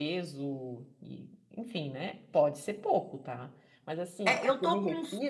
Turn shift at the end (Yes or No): Yes